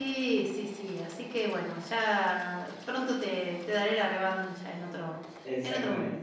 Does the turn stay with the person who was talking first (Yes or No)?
No